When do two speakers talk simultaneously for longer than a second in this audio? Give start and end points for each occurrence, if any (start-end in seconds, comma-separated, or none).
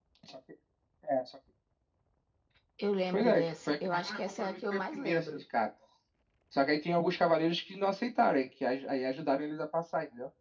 3.1-5.4